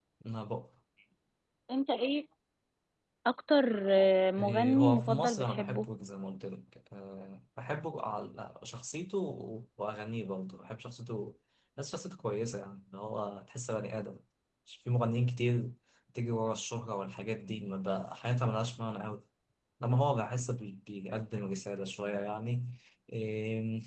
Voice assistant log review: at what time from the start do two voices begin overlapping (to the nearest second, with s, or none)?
4 s